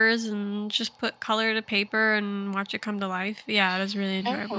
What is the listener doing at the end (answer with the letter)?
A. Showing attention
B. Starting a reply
B